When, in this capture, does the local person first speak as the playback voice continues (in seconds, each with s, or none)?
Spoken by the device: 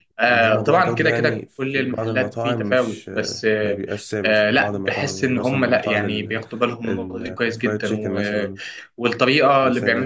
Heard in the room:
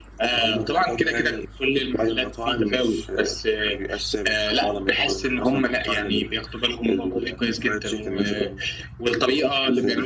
none